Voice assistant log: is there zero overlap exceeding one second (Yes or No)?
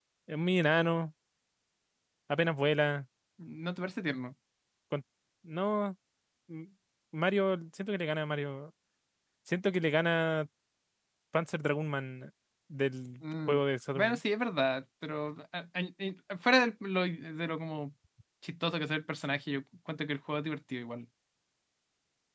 Yes